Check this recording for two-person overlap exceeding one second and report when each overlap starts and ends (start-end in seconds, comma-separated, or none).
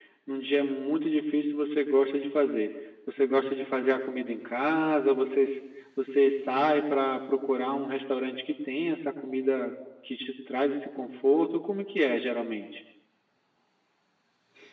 none